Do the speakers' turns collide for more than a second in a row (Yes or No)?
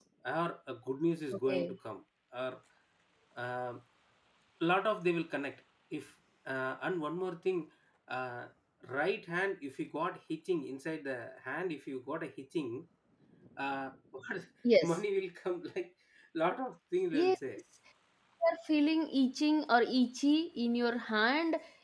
No